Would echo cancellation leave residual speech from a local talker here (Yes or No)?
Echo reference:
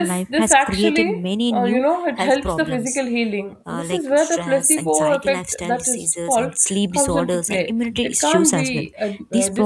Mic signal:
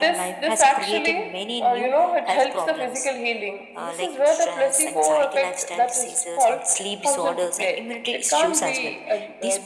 No